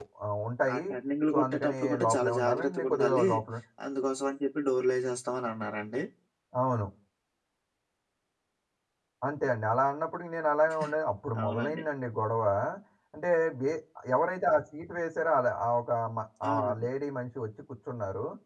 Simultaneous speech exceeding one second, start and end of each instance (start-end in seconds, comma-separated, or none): 1.3-3.3